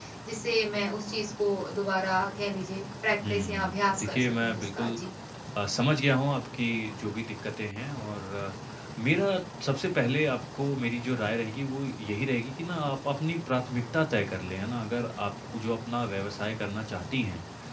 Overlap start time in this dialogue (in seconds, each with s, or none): 3.2 s